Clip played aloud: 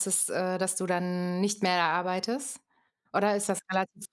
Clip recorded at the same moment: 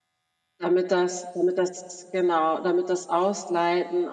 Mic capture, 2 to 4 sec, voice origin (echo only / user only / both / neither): user only